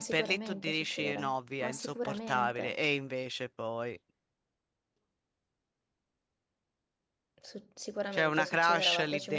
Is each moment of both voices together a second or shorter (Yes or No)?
No